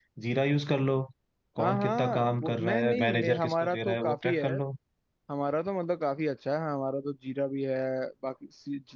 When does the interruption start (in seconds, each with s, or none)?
1.6 s